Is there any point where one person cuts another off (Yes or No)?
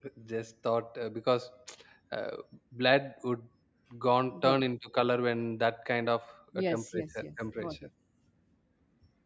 Yes